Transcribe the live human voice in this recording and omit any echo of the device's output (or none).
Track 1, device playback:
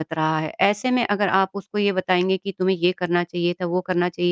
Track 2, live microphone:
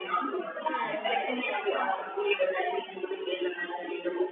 हुँ, बिल्कुल सही कहा।